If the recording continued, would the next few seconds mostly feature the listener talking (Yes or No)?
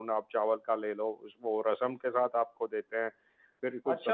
Yes